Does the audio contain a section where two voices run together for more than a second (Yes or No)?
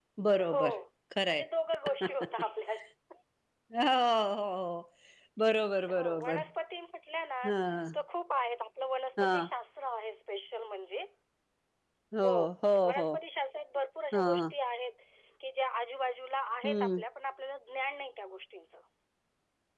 No